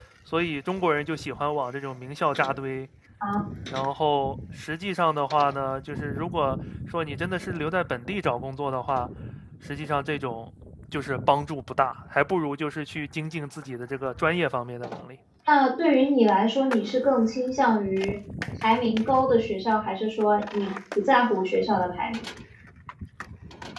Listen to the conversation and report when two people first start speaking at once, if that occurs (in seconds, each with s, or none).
none